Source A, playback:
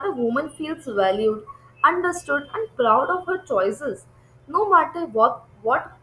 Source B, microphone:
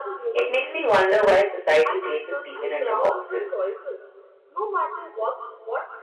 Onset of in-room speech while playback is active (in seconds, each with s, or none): 0.3 s